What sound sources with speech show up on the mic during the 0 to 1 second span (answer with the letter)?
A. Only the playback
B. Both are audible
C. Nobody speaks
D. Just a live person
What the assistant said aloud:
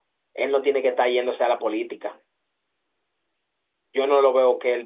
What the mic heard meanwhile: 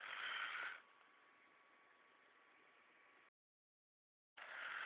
C